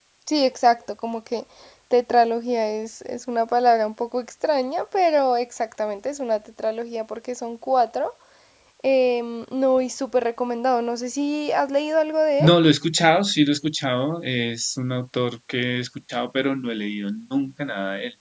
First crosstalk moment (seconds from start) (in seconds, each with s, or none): none